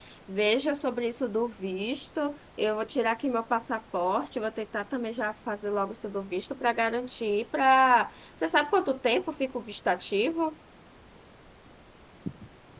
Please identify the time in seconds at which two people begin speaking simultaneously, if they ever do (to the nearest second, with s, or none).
none